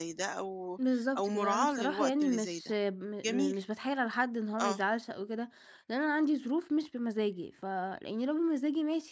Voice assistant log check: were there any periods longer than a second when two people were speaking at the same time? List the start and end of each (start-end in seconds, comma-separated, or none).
1.2-2.6